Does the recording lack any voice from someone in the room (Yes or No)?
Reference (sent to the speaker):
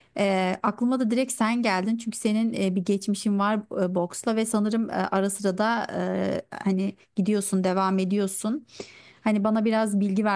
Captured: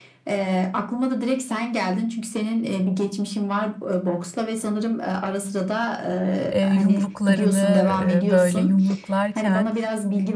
No